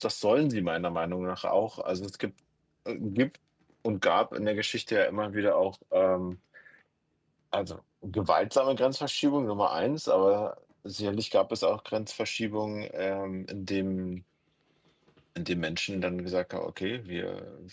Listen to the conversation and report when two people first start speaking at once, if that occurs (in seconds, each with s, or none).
none